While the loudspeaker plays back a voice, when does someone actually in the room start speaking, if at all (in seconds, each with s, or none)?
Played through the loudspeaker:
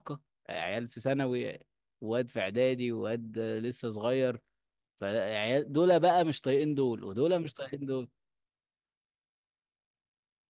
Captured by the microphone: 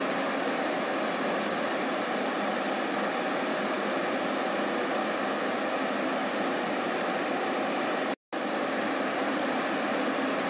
none